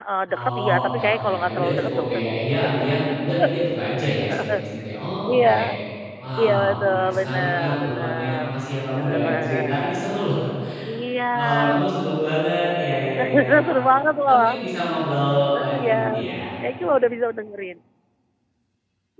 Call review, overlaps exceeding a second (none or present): present